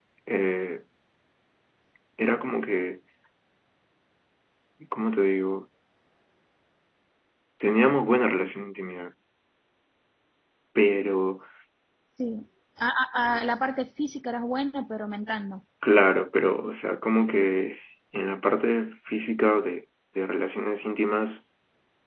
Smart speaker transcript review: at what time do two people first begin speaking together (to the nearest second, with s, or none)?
none